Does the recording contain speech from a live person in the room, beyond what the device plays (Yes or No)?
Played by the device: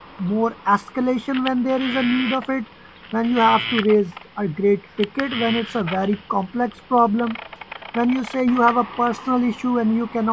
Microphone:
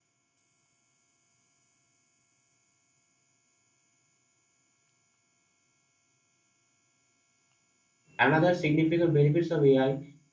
Yes